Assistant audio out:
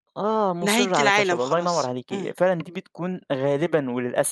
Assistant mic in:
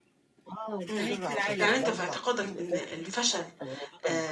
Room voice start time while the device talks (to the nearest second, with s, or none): 1 s